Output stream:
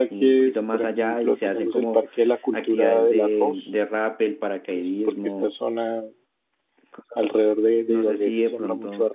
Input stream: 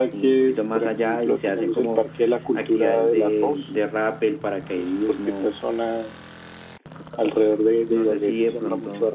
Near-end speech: none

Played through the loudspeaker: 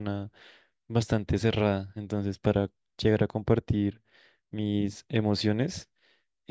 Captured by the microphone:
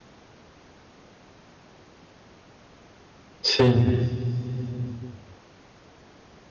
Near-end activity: present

